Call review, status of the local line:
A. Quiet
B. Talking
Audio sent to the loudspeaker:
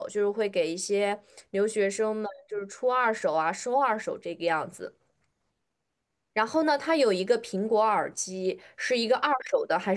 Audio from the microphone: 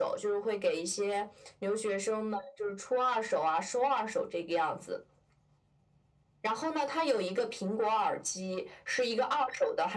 A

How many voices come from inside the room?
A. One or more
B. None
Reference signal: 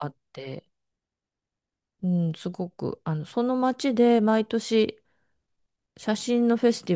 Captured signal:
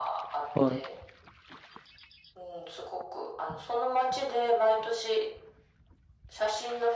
A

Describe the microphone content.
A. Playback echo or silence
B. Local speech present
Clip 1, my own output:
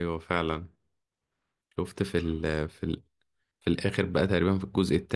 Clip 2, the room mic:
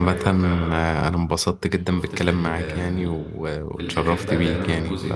B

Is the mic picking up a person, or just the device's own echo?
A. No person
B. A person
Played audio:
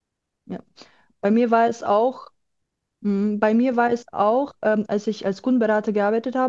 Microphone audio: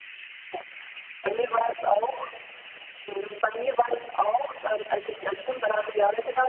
A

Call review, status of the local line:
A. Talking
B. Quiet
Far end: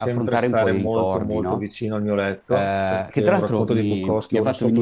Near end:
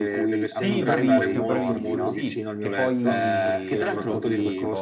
A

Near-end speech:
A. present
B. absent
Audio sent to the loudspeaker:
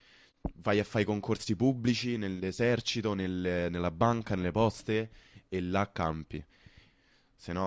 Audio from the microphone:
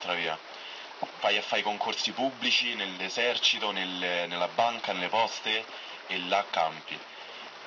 B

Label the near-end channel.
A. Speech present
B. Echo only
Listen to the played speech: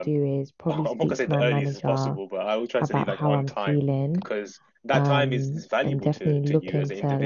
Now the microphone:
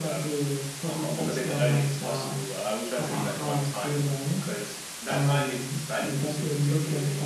B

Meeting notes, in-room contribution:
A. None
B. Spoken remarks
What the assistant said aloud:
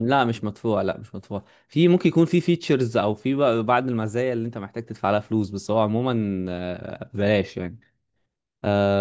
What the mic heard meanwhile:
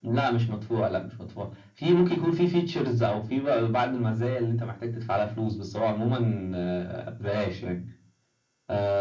A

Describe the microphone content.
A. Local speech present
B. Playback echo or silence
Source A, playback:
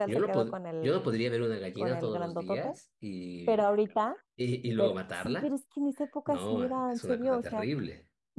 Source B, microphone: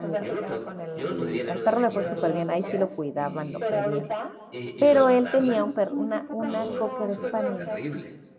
A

